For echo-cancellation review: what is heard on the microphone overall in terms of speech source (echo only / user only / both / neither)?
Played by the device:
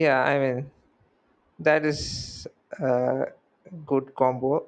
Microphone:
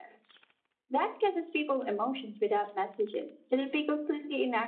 user only